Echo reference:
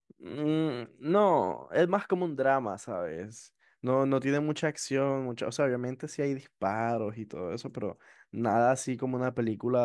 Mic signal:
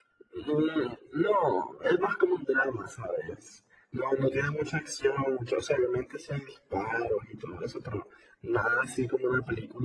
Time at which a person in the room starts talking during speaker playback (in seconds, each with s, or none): none